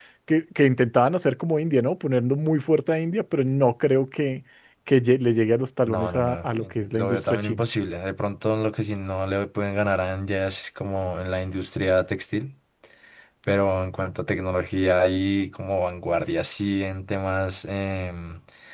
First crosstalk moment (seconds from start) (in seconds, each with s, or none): 5.9 s